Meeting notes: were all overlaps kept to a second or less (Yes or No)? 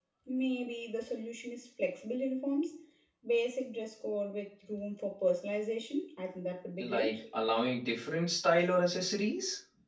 Yes